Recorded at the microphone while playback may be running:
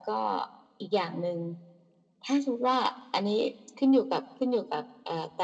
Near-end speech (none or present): none